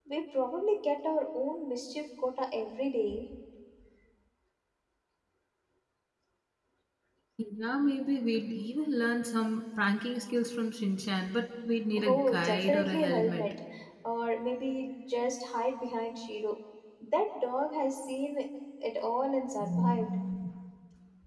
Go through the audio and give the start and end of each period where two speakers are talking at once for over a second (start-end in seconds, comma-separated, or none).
12.0-13.5